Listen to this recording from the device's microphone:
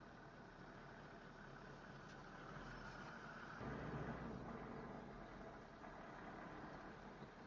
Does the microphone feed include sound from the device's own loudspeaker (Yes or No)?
No